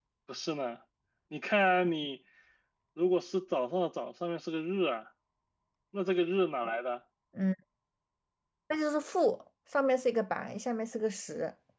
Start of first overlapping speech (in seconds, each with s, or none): none